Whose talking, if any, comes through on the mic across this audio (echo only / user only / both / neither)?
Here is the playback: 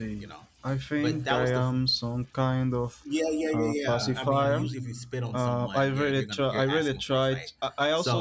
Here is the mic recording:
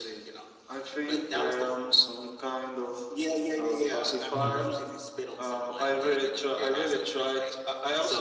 both